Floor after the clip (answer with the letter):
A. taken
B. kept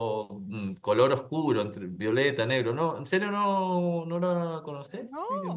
A